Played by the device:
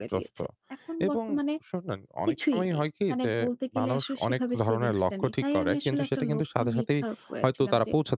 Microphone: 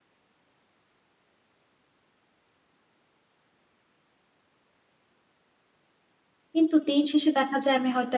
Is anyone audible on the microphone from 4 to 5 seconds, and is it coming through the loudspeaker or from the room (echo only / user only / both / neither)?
neither